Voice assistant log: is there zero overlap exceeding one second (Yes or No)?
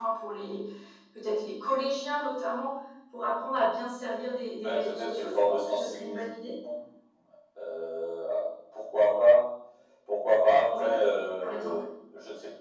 No